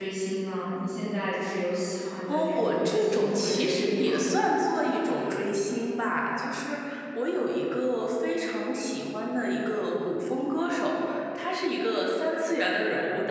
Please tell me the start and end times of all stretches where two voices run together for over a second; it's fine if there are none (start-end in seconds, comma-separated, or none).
2.3-4.2